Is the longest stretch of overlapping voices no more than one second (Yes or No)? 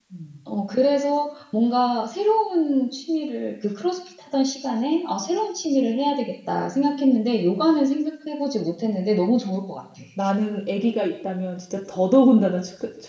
Yes